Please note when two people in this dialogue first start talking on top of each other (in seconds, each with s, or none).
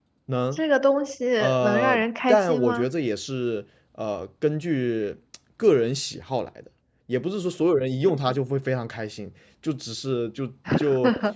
1.6 s